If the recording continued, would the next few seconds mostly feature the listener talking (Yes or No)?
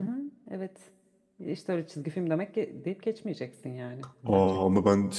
Yes